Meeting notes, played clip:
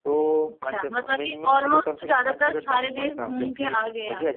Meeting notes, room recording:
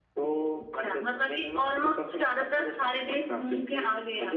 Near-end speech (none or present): none